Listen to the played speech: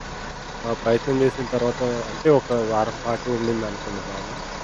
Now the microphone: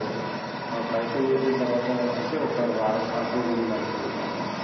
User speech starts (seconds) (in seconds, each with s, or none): none